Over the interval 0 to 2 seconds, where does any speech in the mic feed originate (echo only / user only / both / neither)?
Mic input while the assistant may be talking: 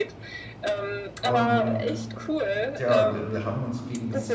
both